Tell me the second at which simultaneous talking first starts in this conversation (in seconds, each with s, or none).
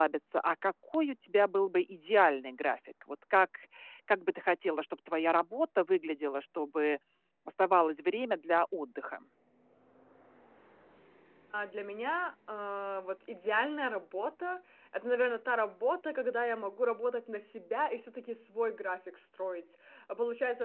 none